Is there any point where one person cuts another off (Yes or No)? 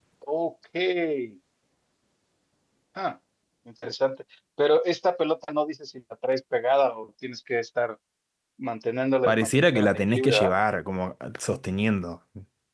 Yes